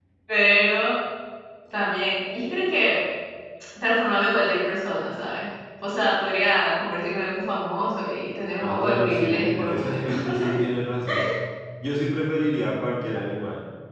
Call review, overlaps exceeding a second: present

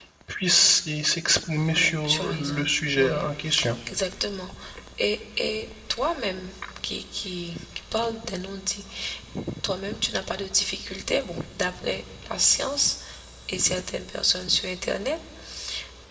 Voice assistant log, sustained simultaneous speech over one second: present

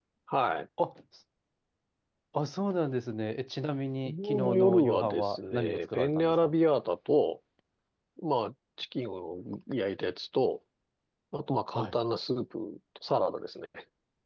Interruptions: present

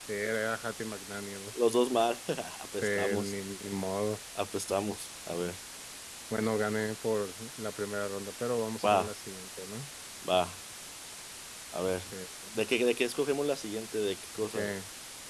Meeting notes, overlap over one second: none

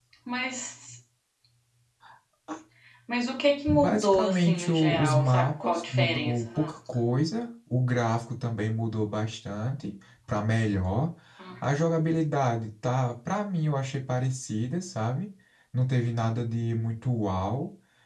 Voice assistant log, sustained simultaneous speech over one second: present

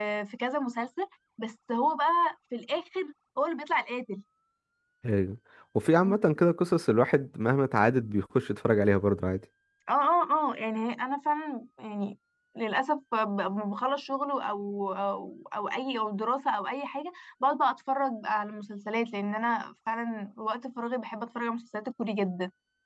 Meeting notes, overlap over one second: none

